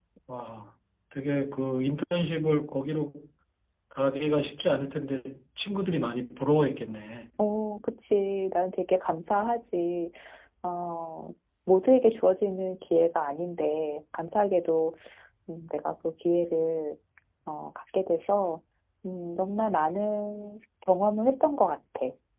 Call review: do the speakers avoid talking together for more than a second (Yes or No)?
Yes